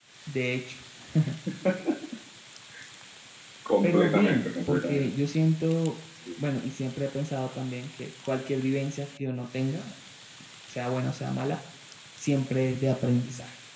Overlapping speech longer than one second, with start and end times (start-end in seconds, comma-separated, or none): 3.8-5.1